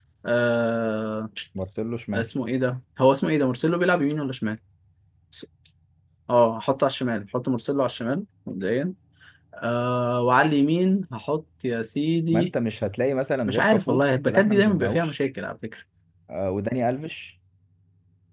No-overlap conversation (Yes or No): No